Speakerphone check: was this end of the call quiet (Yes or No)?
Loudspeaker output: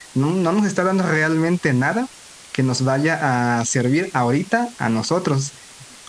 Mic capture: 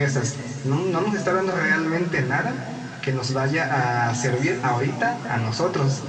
Yes